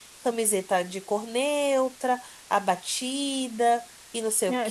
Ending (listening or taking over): taking over